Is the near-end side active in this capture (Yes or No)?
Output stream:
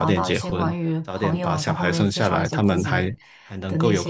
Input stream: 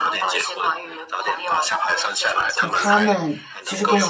Yes